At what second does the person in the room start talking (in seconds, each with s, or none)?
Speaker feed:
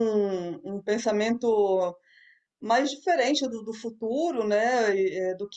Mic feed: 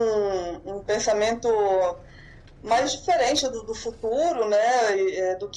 none